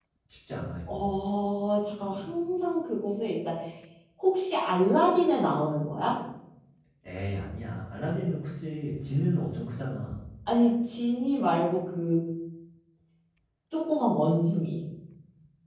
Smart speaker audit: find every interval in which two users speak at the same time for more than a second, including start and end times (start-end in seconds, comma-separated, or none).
none